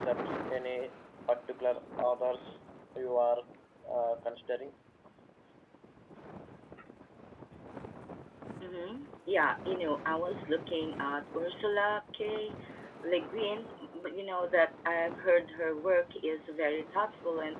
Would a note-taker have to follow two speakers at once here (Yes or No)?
No